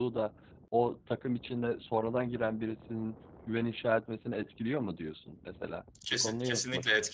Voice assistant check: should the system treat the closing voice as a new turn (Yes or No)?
Yes